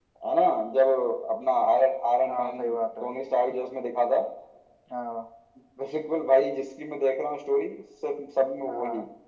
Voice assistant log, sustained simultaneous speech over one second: none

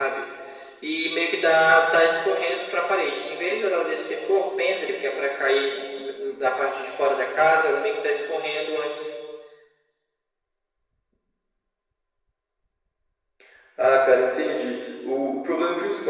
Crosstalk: none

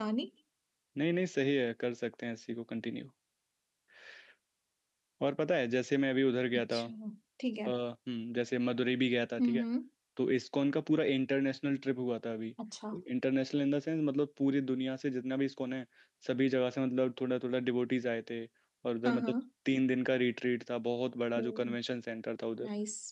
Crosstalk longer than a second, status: none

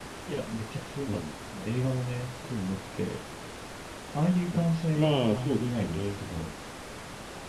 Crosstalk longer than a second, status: present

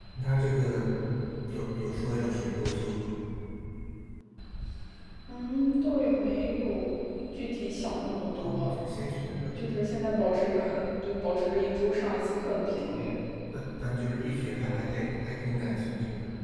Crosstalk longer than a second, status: none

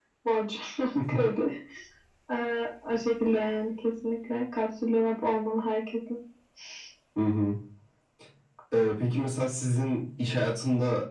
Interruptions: none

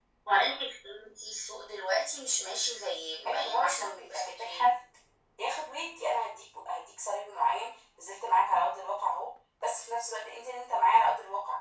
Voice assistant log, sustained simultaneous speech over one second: present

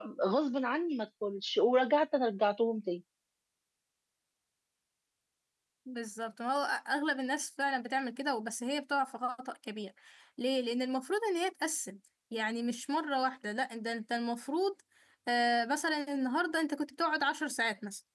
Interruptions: none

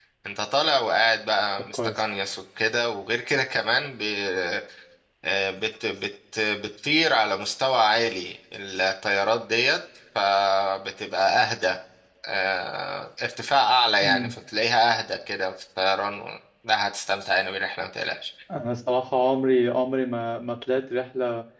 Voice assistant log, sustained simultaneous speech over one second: none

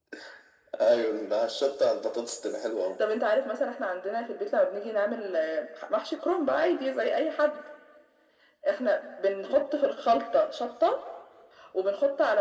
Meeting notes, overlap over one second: none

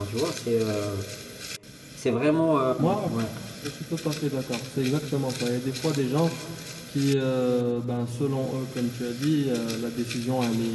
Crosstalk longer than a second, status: none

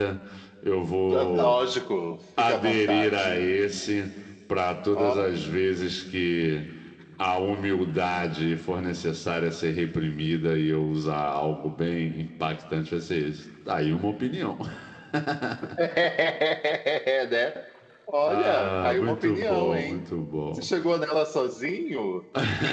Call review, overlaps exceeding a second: present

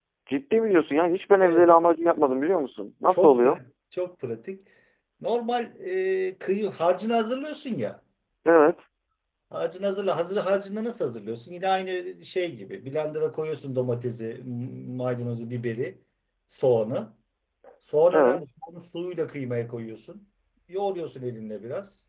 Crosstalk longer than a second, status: none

